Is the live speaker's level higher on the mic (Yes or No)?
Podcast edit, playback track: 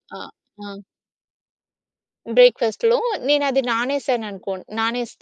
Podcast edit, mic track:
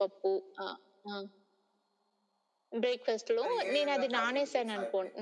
No